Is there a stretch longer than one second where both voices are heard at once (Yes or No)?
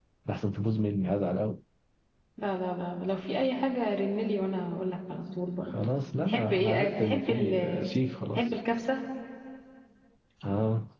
Yes